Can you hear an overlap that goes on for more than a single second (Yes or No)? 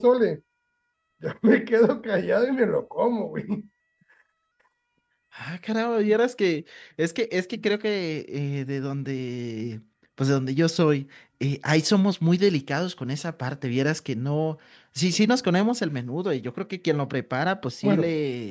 No